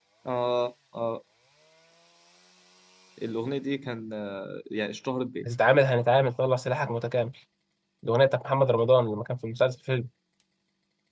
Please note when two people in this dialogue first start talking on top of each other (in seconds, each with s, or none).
none